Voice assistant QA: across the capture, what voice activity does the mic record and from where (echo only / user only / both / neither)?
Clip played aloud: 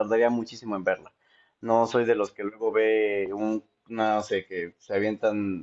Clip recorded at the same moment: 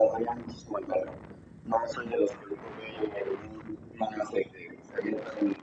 echo only